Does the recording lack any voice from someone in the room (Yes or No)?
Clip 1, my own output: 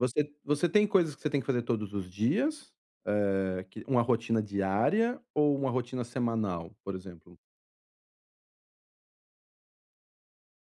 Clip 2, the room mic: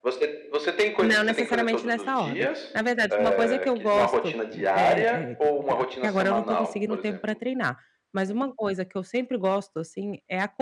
No